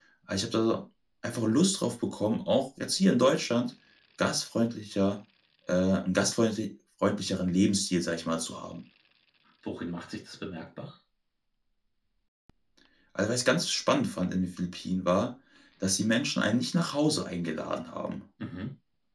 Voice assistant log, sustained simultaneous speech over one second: none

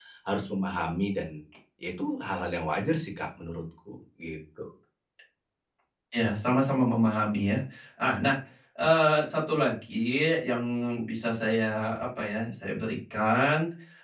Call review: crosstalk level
none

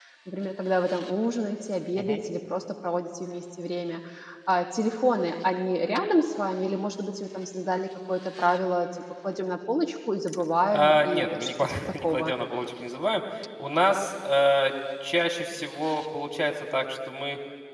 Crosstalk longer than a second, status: present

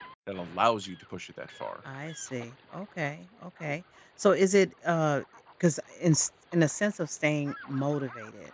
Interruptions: none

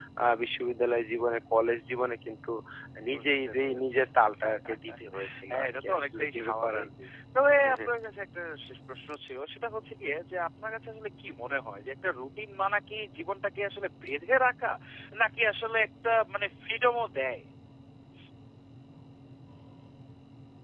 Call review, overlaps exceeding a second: present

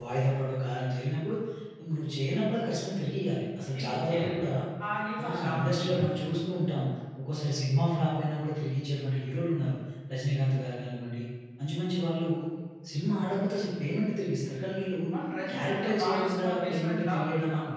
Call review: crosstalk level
present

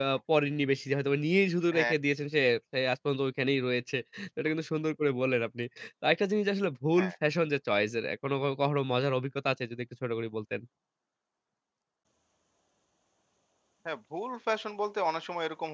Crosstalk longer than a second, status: none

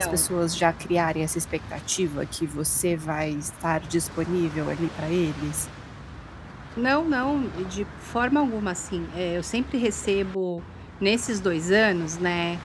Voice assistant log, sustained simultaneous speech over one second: none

